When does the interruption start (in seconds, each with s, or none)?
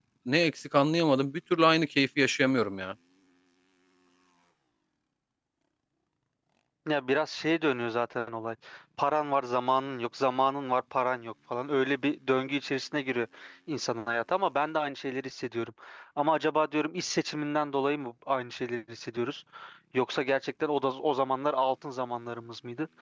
none